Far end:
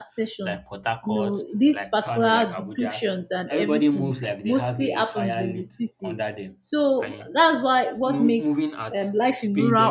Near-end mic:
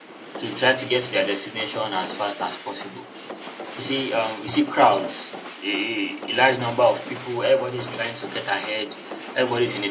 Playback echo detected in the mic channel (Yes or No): No